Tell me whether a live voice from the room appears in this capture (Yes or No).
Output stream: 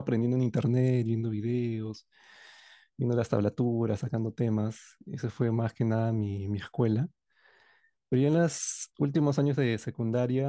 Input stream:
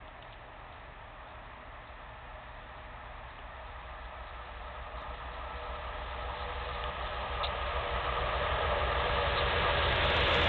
No